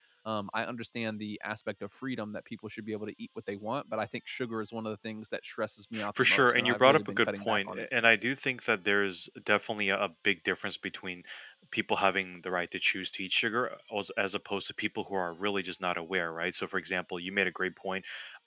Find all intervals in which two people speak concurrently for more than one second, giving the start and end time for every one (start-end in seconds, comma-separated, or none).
6.2-7.9